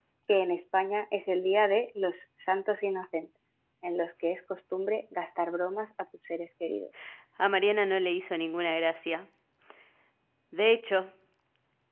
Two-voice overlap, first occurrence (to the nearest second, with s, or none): none